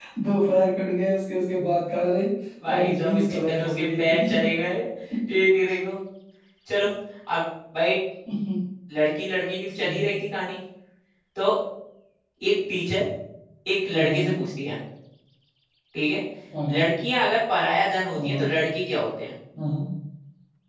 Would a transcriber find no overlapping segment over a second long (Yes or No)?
No